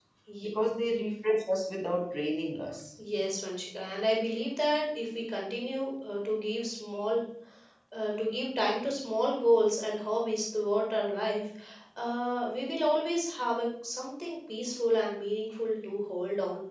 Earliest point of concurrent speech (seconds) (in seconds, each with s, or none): none